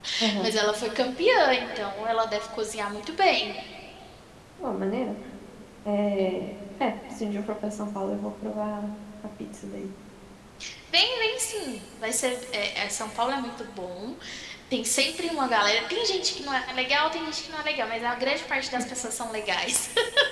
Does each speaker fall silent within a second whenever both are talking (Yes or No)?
Yes